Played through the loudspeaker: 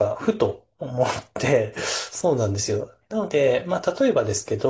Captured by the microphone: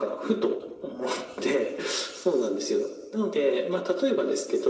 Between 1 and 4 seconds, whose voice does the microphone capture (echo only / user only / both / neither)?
echo only